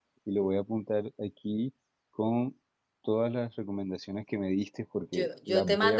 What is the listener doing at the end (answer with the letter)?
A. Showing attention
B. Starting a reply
B